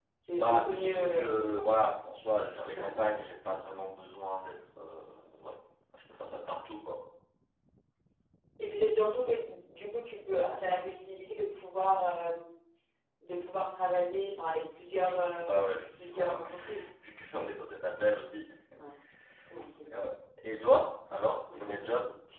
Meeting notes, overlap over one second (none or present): present